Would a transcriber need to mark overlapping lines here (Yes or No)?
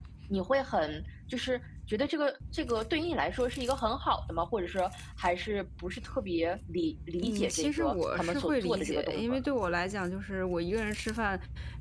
Yes